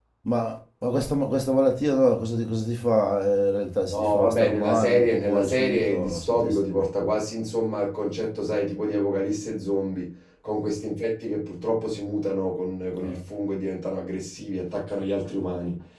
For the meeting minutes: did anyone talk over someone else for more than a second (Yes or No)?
Yes